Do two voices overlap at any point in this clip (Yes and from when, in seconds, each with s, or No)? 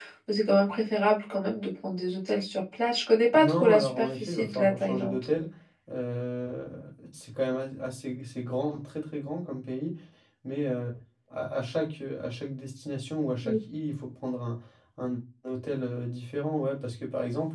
Yes, from 3.3 s